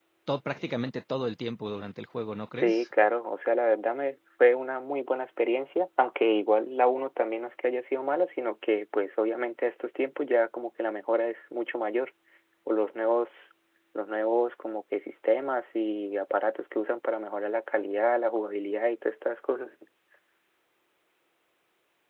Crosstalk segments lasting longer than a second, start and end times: none

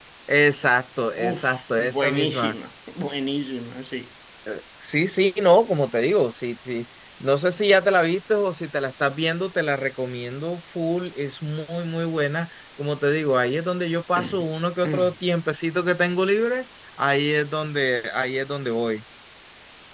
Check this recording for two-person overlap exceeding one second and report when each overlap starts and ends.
1.2-2.5

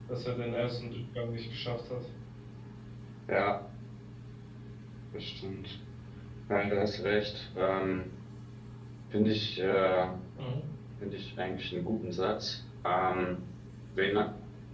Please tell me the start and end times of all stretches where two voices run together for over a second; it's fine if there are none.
none

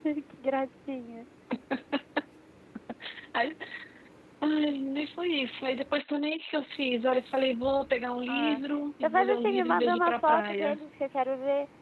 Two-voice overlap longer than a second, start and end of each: 9.0-10.8

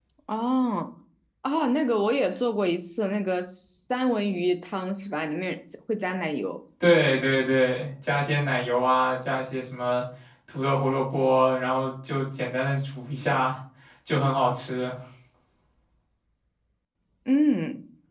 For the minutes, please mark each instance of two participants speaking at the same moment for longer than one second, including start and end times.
none

